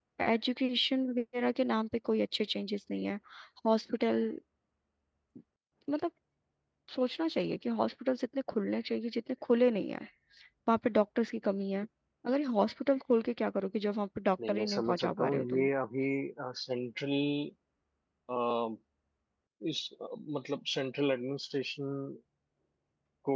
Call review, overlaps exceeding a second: present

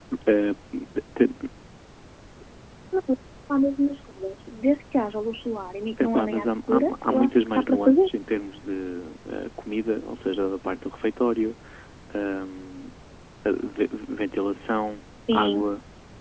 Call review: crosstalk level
present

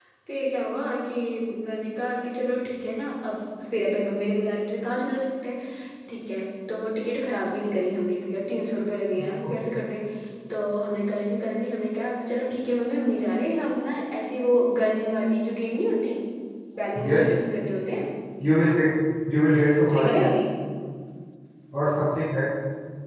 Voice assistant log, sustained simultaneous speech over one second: none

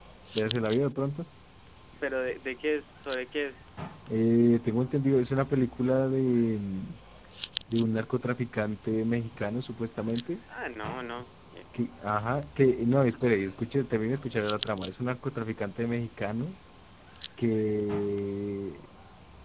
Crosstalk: none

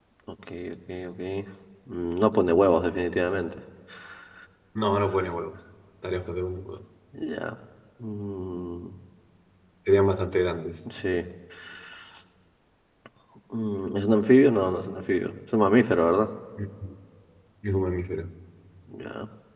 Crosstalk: none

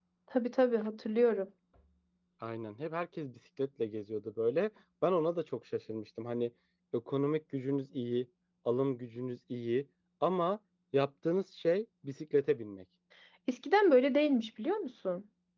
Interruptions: none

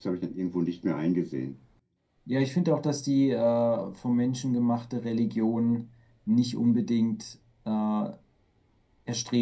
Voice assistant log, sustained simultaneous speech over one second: none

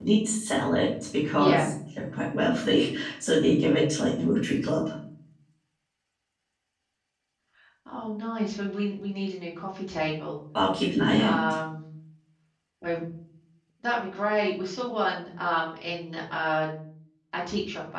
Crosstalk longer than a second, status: none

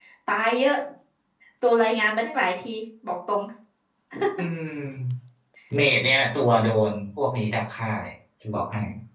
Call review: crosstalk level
none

